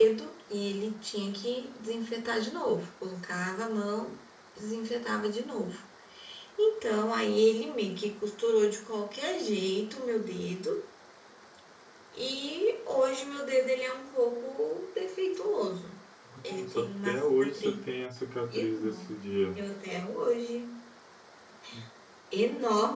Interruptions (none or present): present